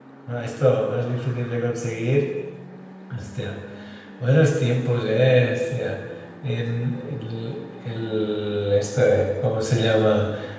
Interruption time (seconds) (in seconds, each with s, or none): none